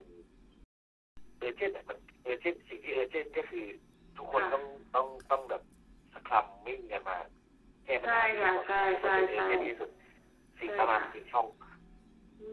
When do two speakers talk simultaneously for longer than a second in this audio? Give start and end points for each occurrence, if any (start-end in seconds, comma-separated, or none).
8.0-9.4